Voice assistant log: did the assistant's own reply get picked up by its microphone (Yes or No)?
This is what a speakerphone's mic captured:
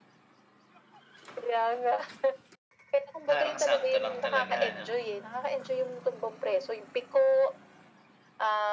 Yes